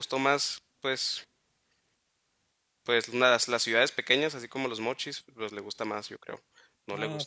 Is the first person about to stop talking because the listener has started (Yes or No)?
Yes